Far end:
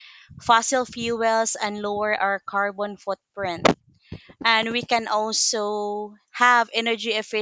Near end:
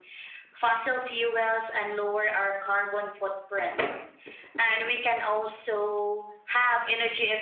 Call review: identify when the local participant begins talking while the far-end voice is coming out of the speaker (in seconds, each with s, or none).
none